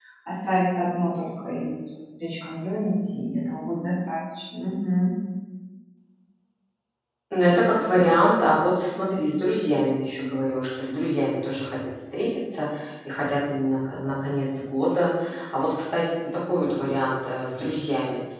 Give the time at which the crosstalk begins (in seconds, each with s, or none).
none